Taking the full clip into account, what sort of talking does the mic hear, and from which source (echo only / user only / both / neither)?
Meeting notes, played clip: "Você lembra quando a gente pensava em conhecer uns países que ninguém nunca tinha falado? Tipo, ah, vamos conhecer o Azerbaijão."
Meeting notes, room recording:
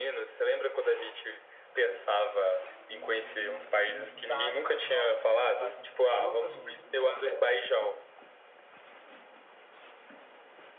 both